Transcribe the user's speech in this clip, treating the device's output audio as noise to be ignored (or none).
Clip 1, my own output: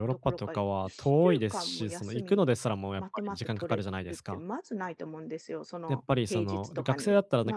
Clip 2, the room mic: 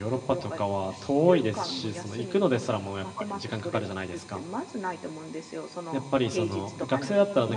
none